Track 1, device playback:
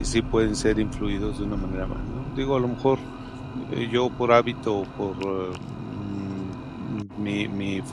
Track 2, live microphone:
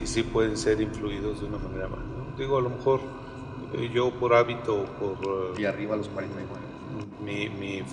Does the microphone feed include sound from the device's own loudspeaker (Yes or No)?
Yes